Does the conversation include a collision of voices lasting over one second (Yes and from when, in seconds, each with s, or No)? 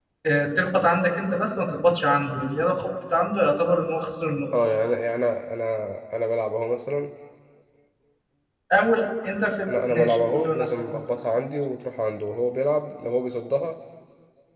Yes, from 9.7 s